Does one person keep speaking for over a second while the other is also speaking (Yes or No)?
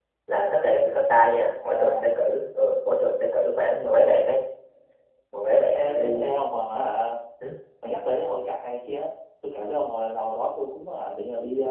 No